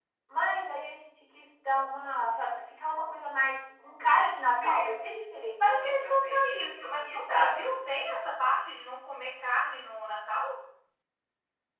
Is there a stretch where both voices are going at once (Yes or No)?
Yes